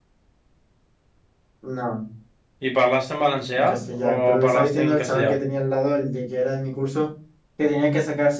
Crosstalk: present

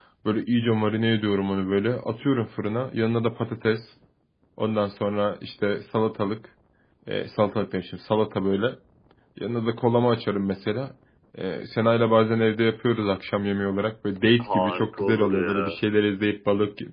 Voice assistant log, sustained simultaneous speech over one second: present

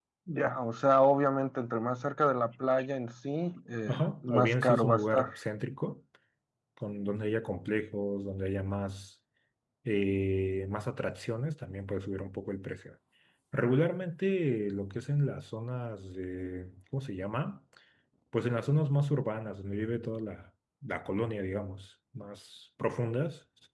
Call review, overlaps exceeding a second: present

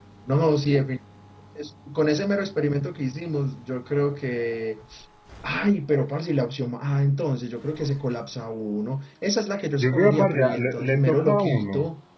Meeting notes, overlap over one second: present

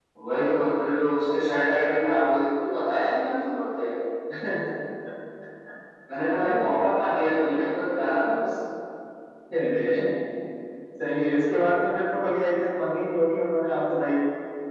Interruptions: none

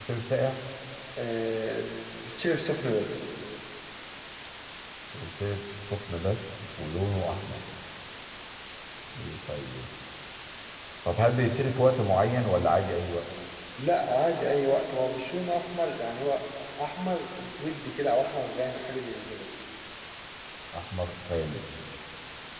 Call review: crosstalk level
none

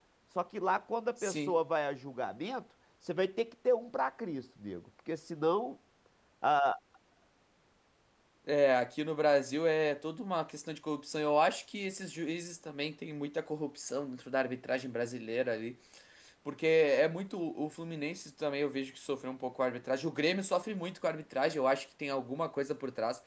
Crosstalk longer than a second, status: none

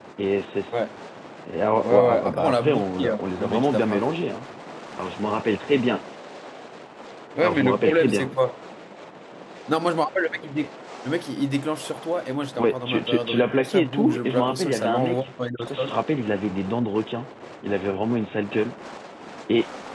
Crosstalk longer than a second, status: present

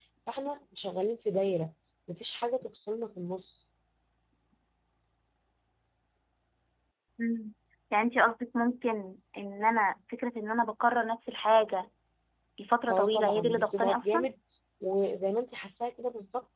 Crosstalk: present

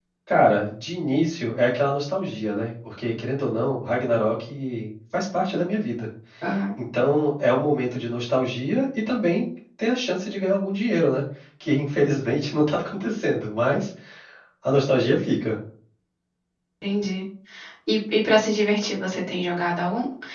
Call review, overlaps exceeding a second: none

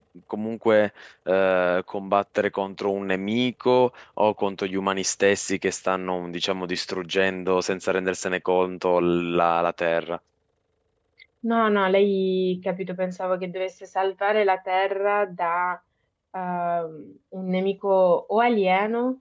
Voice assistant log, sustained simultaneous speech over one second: none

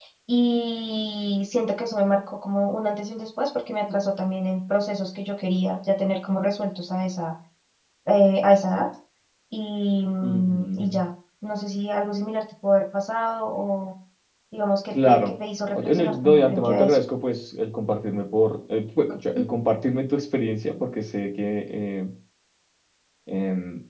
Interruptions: present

